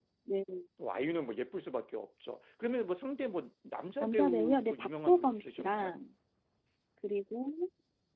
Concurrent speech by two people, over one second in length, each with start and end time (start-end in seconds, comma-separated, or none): 4.0-5.9